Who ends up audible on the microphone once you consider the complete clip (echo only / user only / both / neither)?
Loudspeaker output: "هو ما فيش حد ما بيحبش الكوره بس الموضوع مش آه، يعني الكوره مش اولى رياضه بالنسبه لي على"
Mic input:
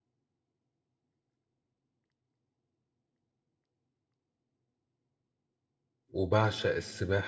user only